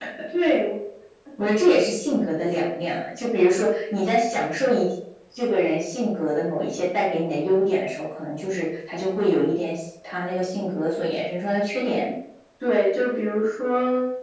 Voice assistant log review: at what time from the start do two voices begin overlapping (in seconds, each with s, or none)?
none